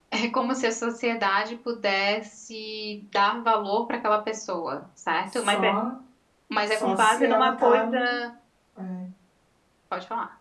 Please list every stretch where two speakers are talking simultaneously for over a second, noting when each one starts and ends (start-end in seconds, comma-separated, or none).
6.7-8.2